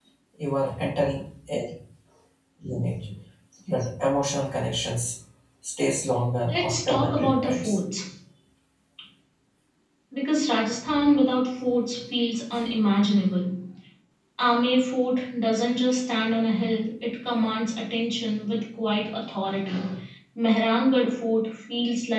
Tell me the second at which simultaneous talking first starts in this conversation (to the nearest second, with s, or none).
6 s